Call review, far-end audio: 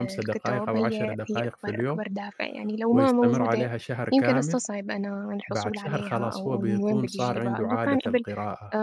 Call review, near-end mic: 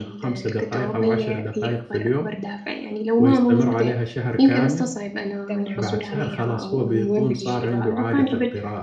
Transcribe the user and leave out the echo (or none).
تمامًا، إمم،